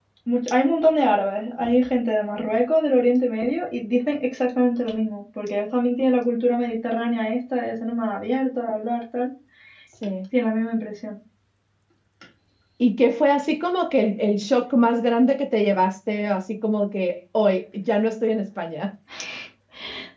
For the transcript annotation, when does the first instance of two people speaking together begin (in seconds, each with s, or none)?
none